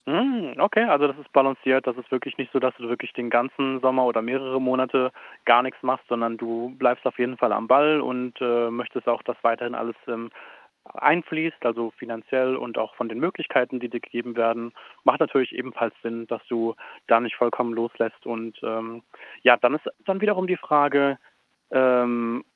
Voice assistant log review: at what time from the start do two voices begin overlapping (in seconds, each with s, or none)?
none